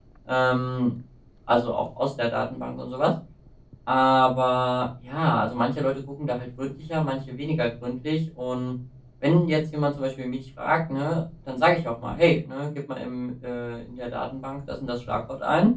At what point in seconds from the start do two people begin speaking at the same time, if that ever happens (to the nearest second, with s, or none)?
none